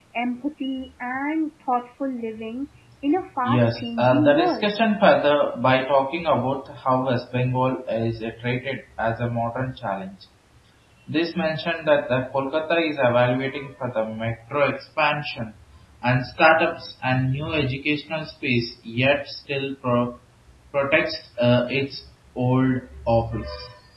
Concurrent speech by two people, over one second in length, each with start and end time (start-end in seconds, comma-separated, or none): 3.4-4.7